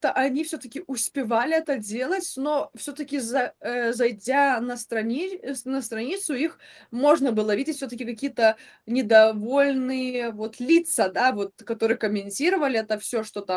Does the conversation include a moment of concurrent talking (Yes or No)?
No